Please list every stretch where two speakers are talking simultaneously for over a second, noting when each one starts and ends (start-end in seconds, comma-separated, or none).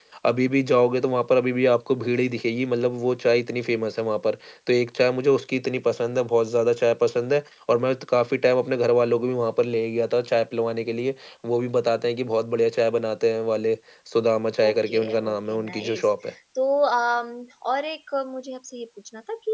14.6-16.0